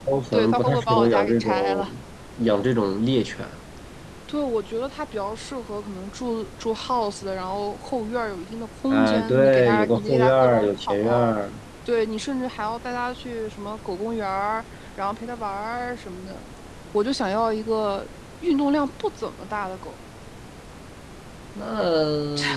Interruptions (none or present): present